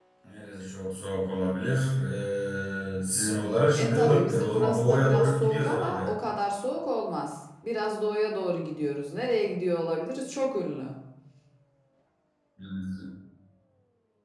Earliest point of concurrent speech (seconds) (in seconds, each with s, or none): 3.8 s